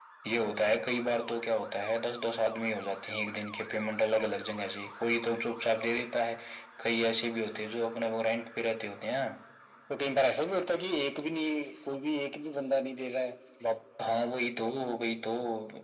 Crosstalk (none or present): none